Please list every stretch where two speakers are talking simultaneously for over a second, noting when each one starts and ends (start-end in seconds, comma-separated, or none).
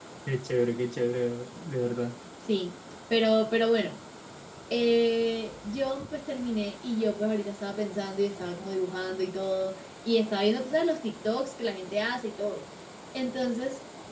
none